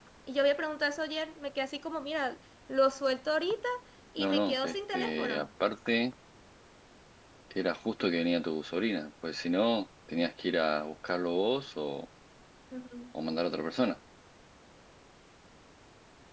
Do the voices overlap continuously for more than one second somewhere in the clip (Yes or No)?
Yes